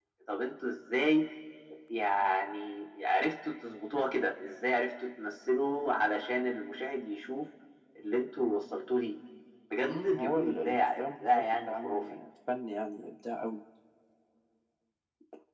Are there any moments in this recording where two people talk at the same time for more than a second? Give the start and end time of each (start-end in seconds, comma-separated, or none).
9.8-12.0